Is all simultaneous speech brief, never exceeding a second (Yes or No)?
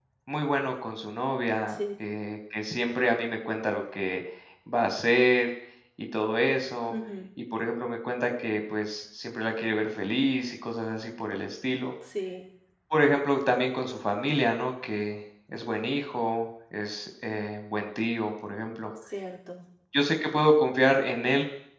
Yes